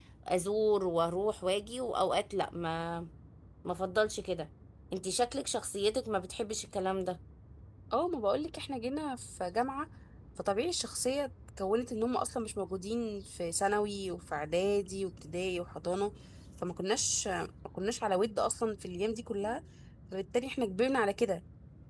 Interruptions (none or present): none